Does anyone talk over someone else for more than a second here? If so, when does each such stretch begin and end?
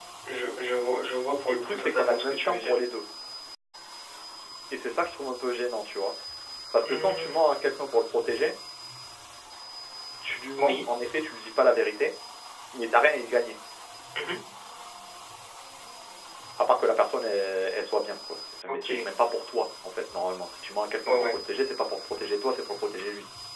1.5-2.8

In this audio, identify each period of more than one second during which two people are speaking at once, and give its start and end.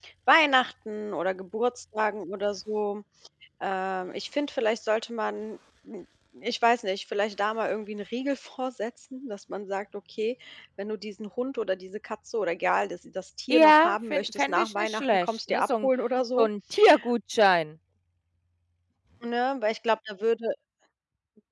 13.5-15.9

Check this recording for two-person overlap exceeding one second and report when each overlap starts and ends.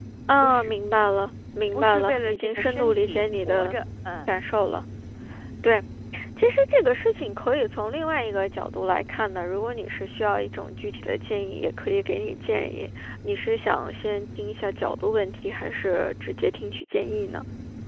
1.7-3.8

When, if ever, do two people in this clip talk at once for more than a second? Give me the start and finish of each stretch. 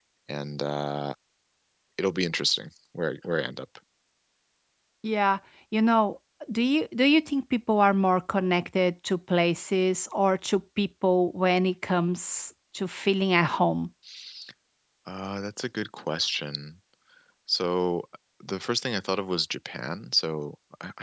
none

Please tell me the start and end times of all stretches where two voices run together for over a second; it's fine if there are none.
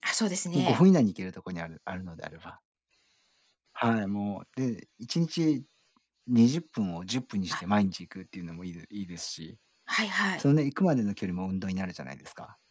none

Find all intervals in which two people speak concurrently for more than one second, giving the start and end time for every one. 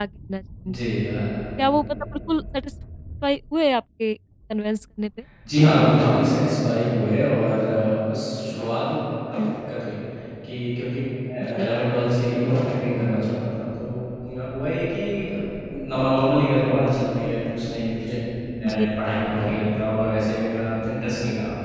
none

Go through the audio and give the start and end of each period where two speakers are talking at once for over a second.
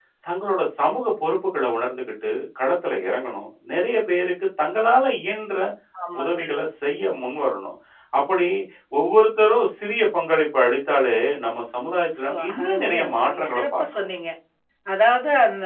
12.2-14.0

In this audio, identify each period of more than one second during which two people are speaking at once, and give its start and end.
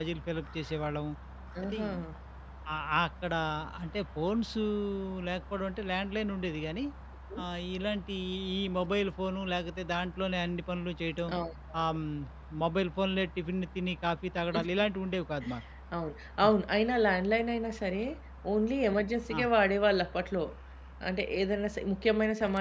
none

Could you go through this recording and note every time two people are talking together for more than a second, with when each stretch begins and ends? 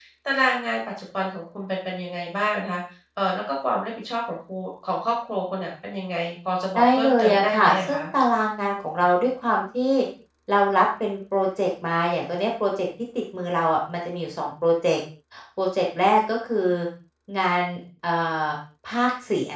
6.8-8.1

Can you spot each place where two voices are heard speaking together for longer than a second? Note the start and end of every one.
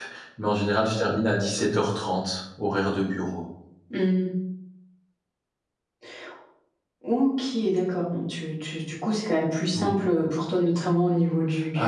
none

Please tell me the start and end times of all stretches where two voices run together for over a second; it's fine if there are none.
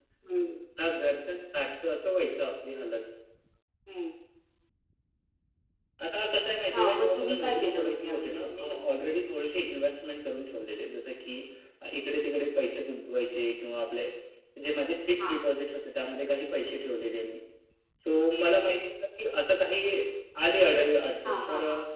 6.7-8.8

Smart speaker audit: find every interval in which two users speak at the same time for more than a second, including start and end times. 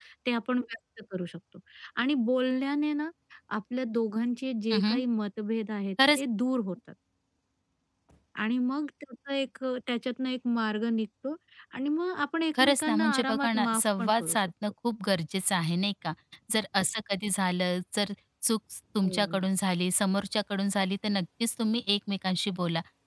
12.6-14.5

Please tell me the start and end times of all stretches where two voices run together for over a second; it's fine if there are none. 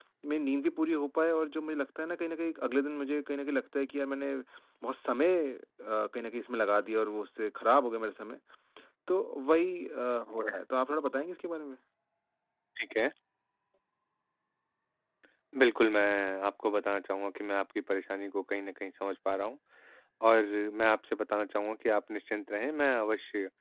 none

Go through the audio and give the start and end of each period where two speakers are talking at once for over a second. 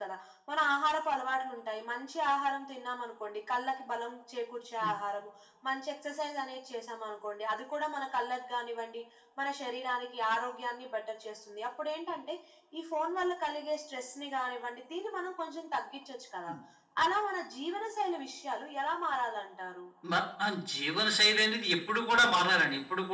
none

